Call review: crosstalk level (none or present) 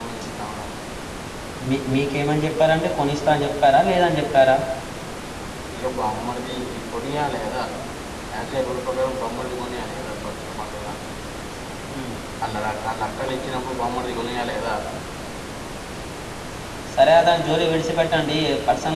none